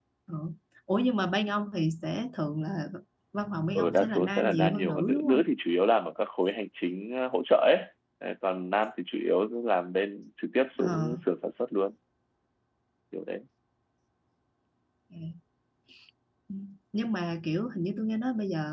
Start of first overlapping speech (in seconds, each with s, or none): 3.8 s